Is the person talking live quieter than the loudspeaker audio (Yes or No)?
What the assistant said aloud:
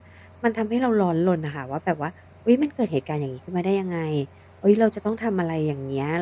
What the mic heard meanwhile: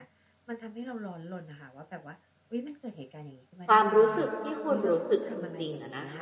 No